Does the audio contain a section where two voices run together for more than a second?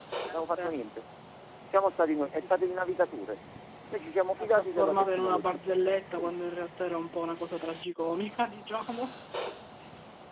Yes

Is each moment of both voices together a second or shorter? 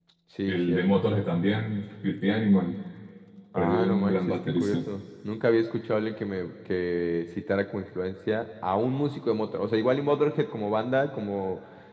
No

